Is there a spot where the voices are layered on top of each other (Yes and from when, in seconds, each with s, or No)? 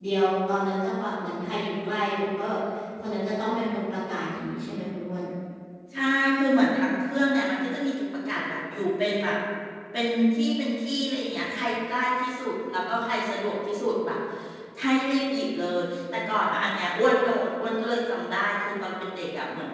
No